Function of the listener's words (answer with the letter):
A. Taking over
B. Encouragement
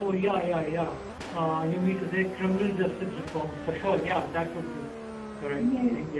A